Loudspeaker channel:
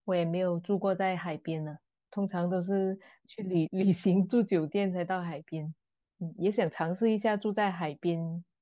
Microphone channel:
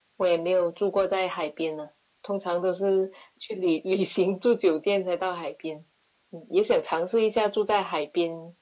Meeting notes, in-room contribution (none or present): none